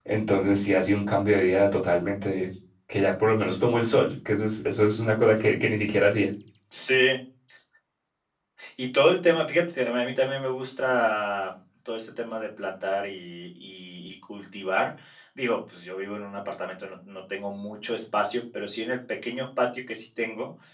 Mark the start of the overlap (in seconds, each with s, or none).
none